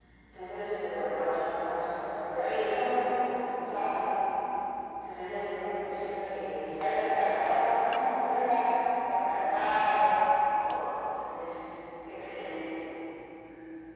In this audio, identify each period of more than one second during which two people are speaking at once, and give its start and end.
none

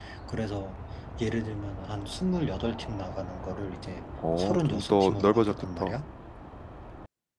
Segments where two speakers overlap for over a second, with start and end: 4.4-5.9

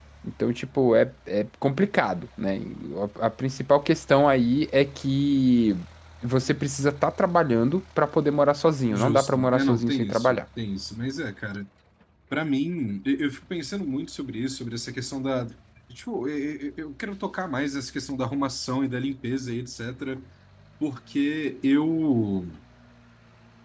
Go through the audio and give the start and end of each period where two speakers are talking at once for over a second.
8.9-10.4

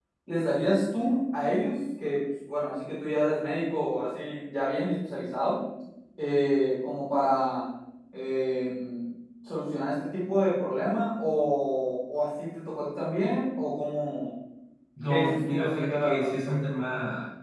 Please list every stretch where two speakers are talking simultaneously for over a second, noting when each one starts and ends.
15.1-16.6

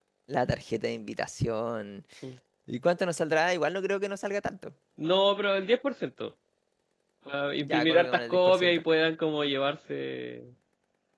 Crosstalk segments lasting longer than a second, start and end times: 7.6-8.8

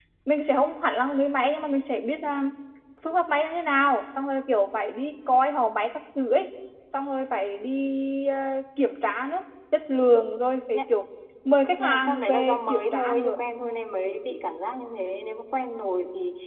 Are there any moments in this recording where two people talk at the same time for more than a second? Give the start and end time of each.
11.7-13.4

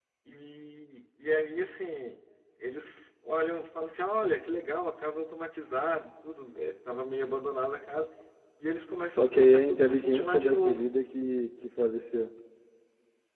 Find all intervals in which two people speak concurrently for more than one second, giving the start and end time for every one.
9.2-10.8

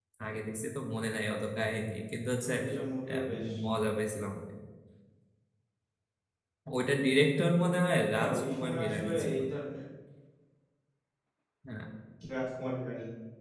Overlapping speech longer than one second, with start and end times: 8.2-9.4

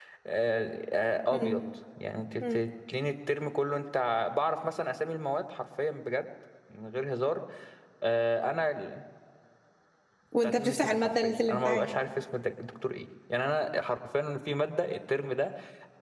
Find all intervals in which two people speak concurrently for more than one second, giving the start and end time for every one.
10.4-11.9

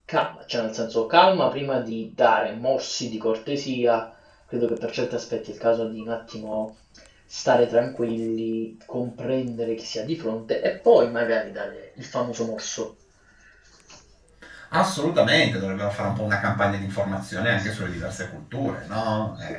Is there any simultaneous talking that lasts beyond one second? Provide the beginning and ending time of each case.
none

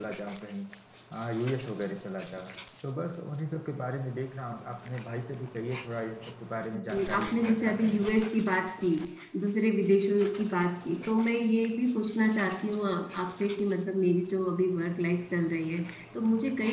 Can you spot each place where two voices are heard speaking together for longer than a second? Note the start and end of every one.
6.7-8.0

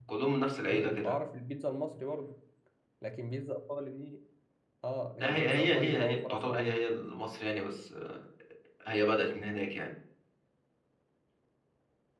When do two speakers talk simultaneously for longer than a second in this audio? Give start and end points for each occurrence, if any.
5.2-6.8

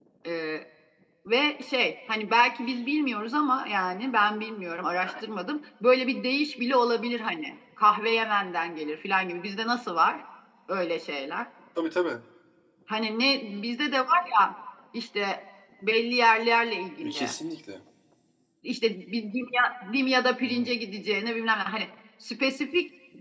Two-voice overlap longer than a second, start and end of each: none

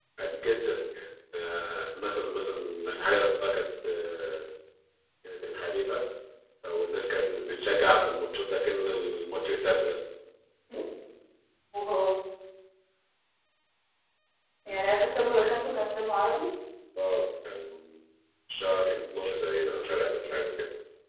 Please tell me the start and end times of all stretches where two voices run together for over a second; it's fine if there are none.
none

